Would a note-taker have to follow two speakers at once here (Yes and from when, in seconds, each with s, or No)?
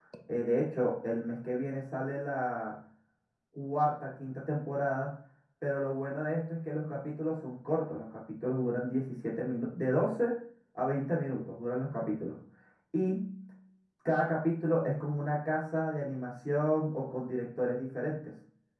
No